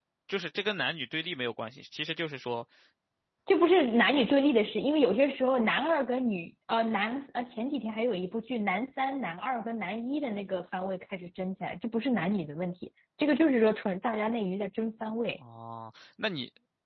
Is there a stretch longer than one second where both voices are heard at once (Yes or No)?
No